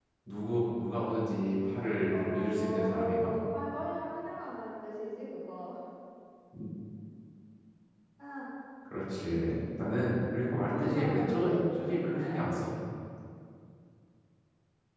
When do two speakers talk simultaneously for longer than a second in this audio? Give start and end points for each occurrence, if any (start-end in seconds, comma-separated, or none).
2.1-3.3, 10.7-12.4